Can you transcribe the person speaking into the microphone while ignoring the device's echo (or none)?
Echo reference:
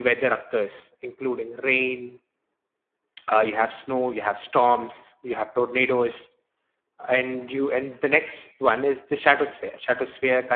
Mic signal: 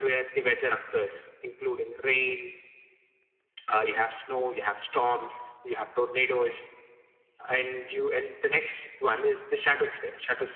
none